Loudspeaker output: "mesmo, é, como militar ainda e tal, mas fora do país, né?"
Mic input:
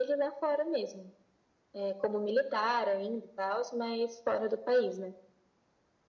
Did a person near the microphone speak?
No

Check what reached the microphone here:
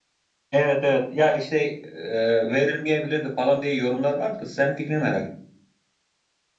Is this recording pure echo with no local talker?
No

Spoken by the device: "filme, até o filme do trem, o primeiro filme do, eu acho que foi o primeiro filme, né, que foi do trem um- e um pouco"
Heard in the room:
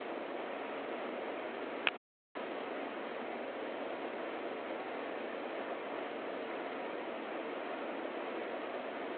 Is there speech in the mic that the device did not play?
No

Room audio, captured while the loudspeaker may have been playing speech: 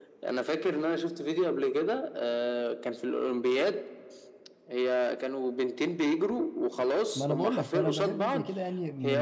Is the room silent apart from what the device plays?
No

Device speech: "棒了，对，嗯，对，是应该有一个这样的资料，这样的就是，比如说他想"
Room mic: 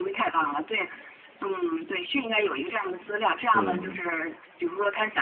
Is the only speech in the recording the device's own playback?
No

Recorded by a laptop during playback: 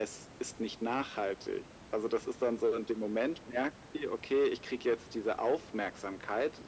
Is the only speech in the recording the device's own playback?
Yes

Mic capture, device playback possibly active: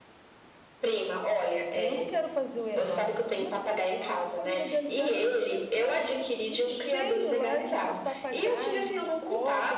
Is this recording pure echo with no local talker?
No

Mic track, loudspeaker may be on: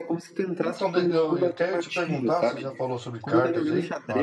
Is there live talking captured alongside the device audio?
Yes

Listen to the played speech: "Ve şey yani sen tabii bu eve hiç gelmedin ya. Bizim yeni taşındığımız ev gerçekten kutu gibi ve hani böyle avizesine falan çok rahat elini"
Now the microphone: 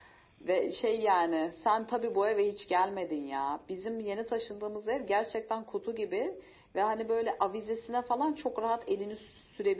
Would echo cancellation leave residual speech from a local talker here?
No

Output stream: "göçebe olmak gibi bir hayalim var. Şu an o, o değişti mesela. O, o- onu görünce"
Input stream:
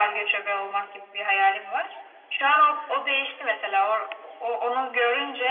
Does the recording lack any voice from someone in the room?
Yes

